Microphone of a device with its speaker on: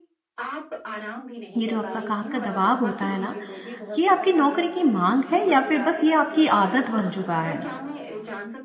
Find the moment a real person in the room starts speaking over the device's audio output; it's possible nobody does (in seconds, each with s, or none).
1.6 s